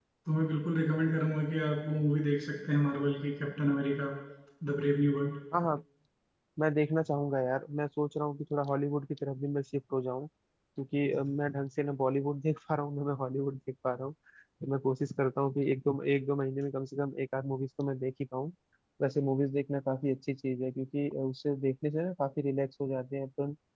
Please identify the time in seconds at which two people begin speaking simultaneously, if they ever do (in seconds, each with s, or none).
none